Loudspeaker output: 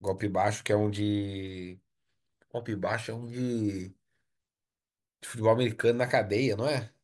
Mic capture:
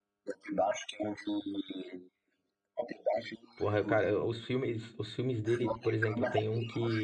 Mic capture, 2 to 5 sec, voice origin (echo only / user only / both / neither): both